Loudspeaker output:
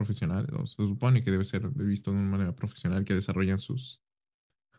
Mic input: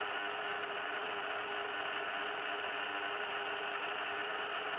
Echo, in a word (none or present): none